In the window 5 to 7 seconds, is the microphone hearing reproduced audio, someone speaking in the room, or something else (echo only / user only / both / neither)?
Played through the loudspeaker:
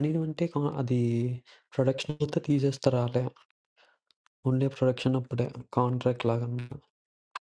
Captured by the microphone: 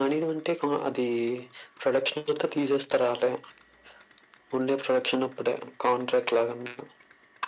echo only